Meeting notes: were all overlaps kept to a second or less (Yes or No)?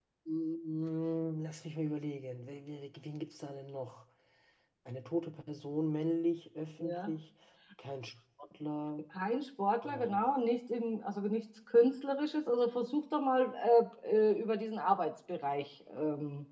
Yes